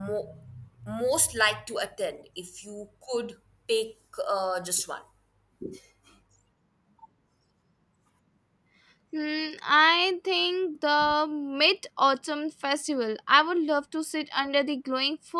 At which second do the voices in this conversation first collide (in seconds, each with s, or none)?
none